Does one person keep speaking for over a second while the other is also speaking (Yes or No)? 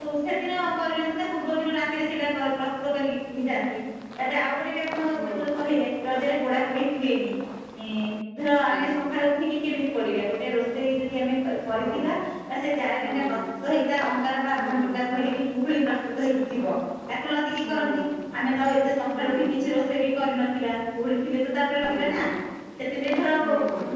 No